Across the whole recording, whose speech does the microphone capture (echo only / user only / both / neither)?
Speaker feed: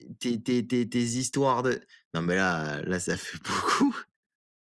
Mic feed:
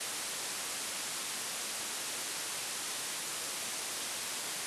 neither